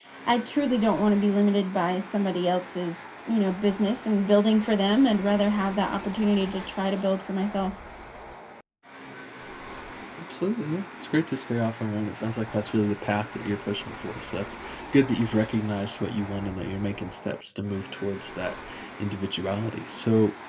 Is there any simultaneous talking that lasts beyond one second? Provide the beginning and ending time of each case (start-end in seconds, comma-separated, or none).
none